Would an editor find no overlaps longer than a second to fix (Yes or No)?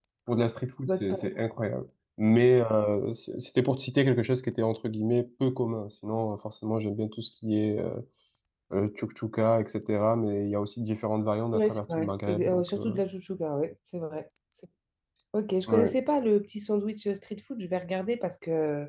No